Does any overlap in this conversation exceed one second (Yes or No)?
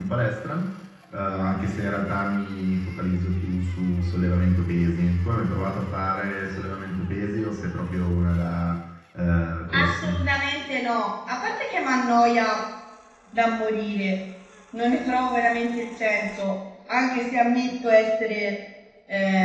No